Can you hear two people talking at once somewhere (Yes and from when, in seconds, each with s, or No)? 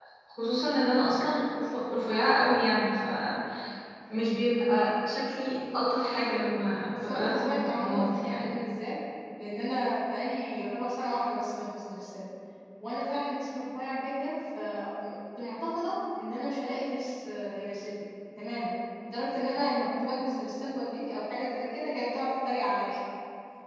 Yes, from 6.9 s